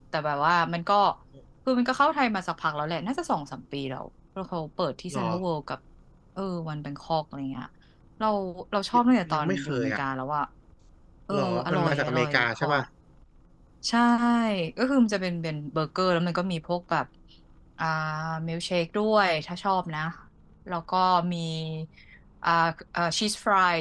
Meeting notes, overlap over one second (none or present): present